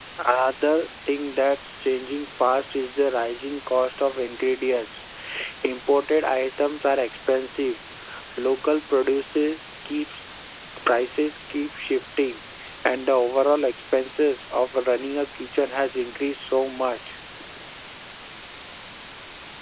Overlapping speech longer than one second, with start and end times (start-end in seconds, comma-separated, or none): none